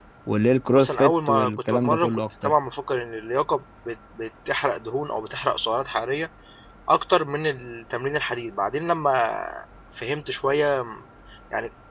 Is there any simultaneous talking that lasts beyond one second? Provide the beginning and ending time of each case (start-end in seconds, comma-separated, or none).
0.7-2.5